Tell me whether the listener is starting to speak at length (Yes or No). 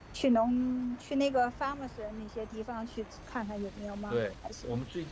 Yes